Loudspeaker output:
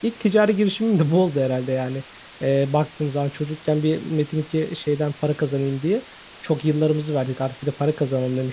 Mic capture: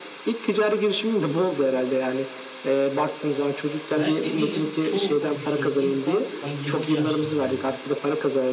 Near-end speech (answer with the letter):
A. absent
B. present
B